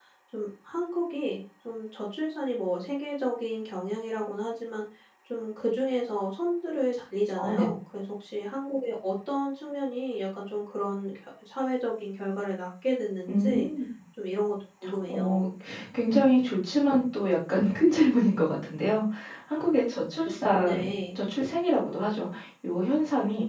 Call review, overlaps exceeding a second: none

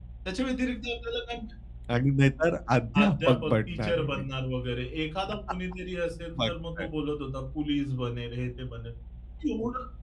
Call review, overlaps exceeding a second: present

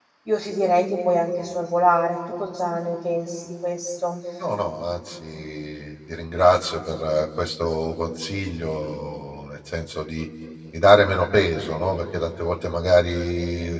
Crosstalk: none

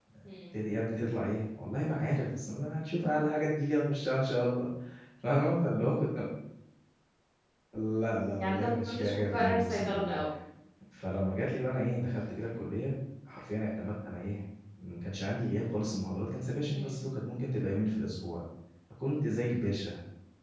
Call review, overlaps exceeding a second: present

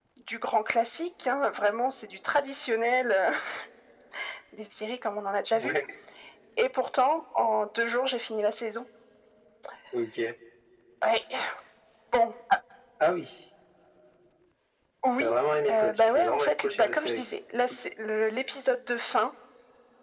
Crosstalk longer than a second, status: present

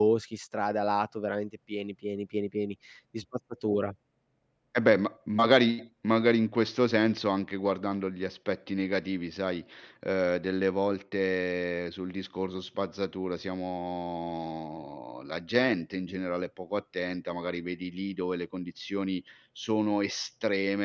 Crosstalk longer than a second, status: none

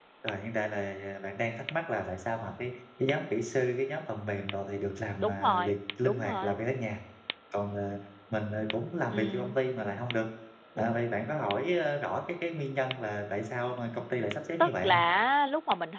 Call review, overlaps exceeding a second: present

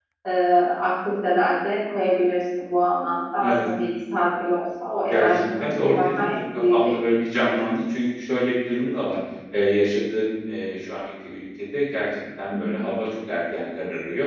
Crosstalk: present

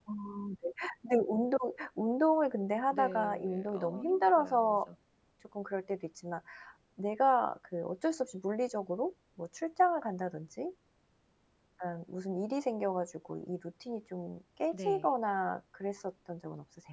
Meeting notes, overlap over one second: present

